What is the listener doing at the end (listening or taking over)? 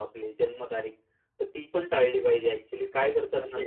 listening